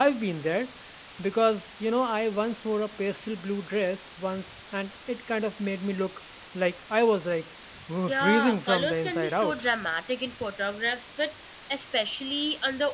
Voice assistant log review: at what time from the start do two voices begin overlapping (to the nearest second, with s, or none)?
8 s